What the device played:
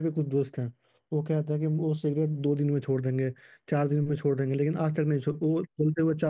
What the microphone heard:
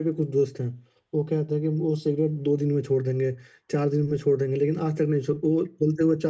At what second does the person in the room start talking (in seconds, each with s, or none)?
none